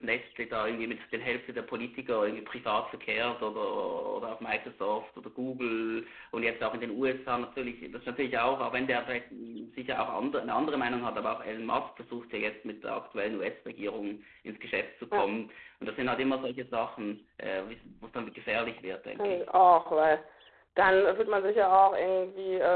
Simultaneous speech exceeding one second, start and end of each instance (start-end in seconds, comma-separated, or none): none